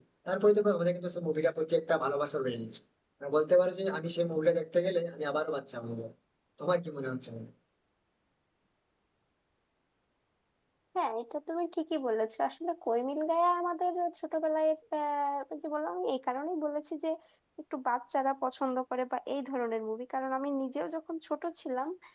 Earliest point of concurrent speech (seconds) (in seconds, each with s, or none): none